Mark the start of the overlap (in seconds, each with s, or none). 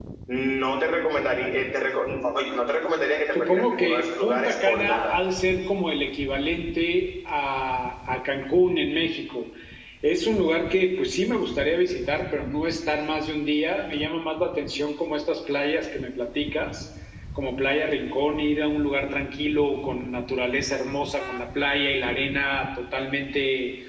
3.3 s